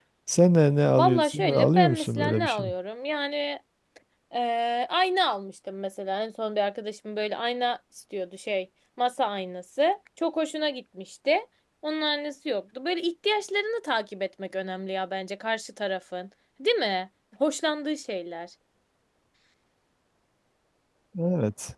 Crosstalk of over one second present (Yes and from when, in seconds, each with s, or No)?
Yes, from 1.0 s